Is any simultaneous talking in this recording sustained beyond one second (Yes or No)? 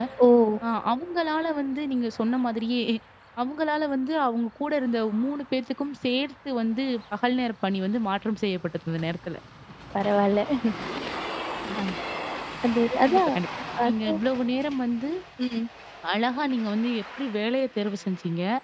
No